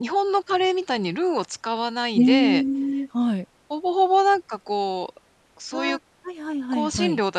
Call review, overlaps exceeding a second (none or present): none